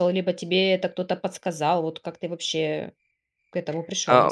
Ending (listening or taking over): taking over